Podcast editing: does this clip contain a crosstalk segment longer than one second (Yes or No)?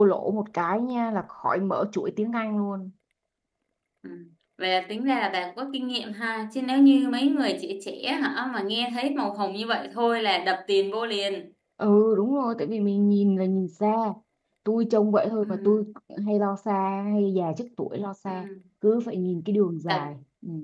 No